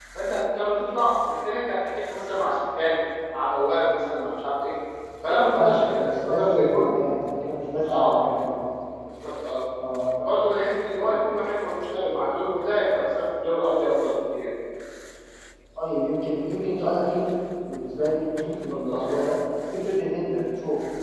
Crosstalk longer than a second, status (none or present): present